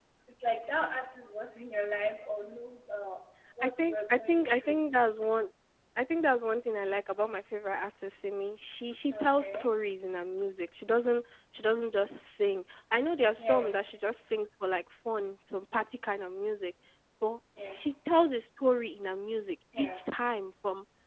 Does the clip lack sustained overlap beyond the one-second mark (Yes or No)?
No